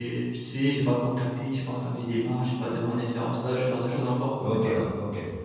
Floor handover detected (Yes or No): Yes